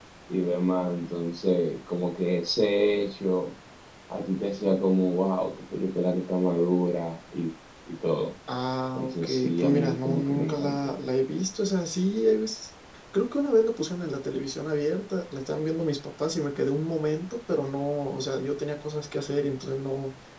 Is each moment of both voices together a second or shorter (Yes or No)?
No